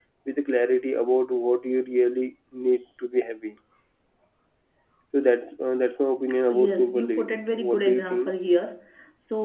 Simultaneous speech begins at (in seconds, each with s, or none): 6.5 s